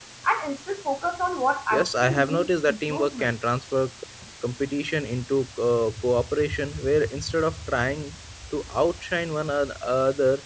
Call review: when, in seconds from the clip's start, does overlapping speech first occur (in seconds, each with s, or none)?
1.7 s